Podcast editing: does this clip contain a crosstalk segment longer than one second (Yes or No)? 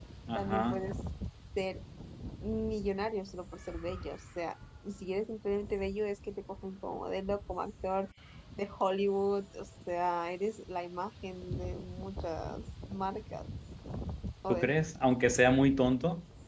No